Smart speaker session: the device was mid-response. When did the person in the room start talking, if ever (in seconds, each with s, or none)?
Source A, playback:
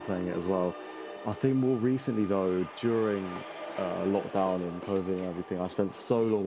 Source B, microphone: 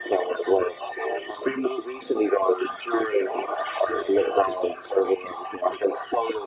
none